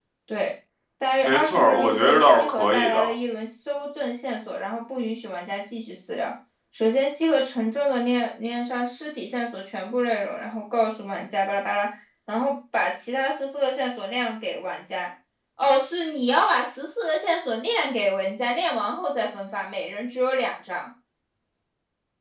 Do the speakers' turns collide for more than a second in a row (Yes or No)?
Yes